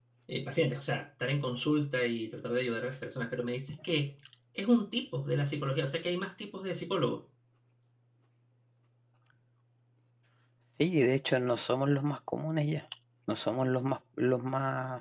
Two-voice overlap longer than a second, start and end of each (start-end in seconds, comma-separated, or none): none